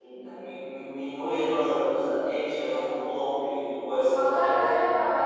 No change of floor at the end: No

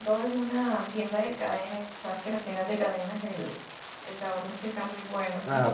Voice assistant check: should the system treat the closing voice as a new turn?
Yes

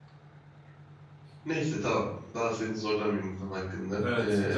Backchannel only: No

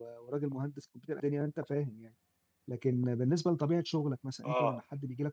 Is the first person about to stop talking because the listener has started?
No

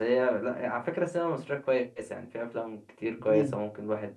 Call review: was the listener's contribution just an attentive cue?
Yes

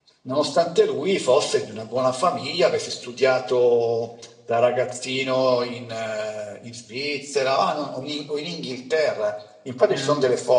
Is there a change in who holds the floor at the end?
No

